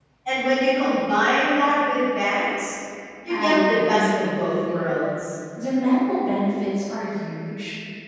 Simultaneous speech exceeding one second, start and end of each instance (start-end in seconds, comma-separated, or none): 3.3-4.9